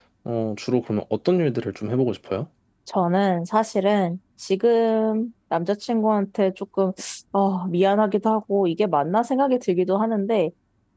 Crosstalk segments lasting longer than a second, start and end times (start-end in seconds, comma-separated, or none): none